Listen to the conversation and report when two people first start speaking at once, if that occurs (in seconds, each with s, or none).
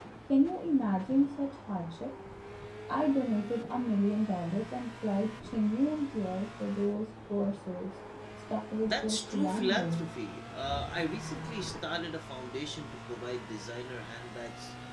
8.9 s